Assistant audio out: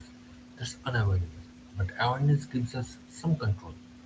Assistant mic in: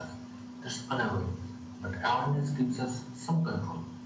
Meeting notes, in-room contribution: none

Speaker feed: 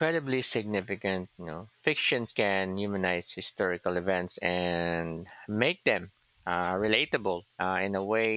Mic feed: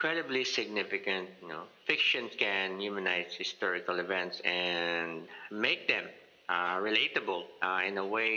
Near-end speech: none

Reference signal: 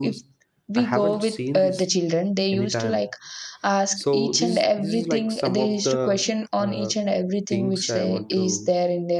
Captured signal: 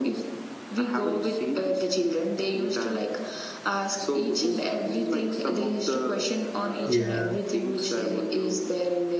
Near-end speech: present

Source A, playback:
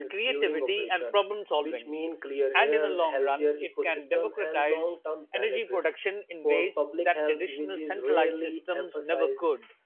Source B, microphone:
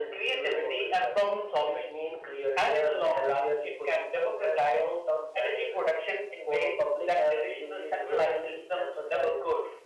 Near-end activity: none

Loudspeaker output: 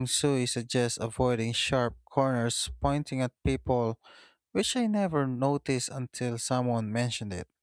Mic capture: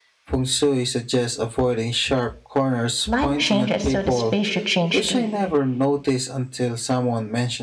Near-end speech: present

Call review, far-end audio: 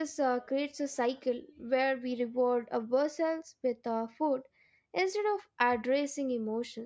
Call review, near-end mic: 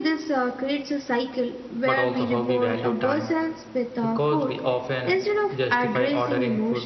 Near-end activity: present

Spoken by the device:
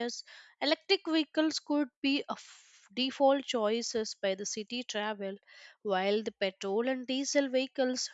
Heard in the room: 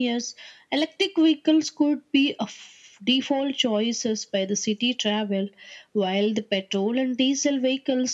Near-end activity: none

